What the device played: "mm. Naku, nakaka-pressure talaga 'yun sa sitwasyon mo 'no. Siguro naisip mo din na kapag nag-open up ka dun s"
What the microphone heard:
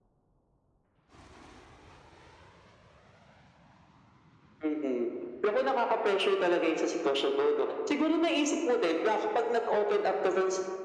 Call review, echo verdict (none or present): present